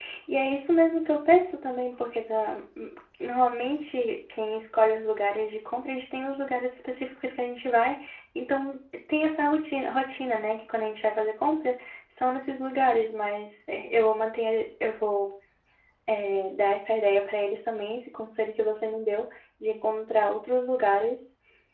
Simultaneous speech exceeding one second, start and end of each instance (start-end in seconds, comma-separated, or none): none